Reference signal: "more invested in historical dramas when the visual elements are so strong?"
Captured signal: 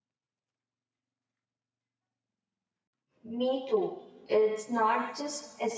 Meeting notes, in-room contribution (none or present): present